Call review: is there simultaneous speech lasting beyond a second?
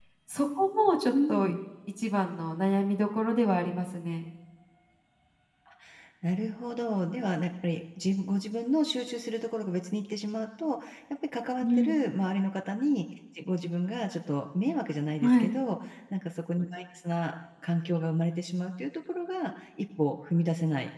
No

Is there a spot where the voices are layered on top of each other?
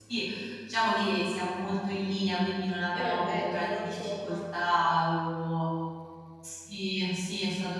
Yes, from 3.0 s

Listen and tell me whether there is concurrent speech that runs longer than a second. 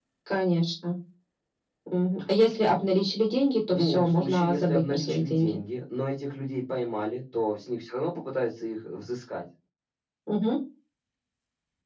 Yes, from 3.7 s

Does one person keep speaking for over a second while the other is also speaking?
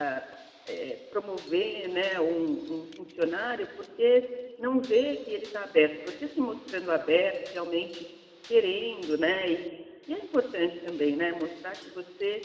No

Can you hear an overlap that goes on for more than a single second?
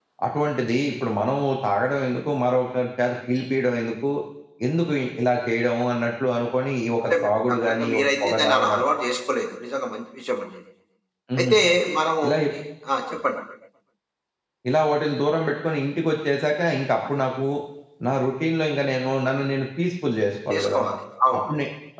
Yes, from 7.1 s

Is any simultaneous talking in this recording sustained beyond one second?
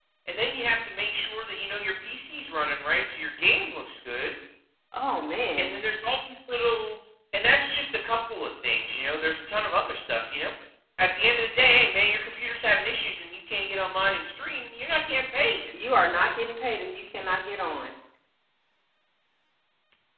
No

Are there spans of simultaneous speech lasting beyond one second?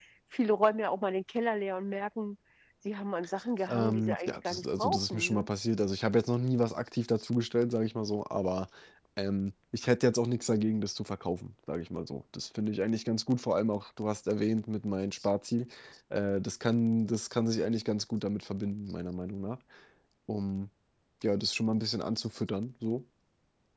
Yes, from 3.7 s

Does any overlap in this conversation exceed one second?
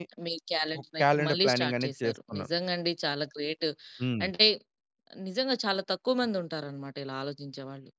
Yes, from 0.8 s

